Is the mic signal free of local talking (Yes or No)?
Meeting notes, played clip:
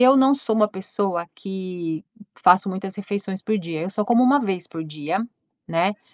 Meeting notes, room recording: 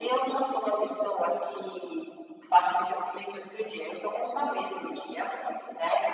Yes